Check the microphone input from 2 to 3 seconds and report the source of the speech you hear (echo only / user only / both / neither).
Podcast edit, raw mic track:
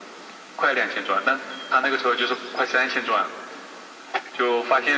echo only